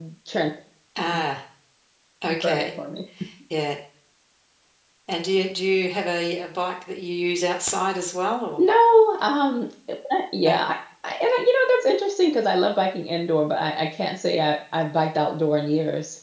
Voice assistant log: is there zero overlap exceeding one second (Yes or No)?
Yes